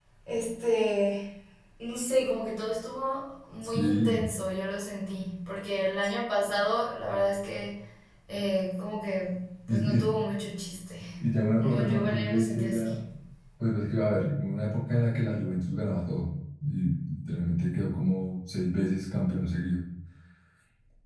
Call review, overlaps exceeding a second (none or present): present